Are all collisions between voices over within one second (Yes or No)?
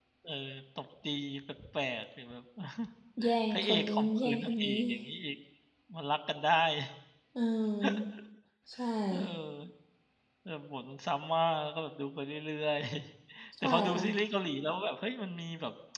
No